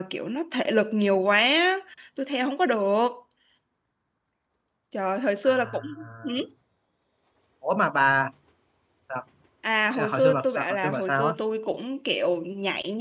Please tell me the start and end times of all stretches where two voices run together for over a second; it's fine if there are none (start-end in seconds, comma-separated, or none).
10.0-11.3